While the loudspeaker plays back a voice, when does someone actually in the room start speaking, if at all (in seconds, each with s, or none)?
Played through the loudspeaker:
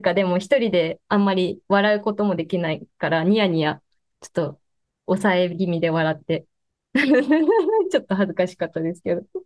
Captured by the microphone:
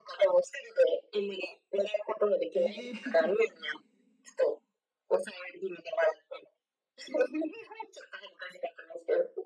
2.5 s